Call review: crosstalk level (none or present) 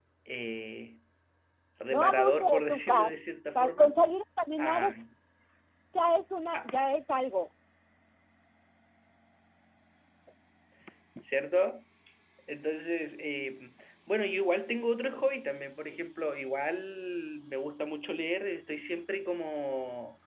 present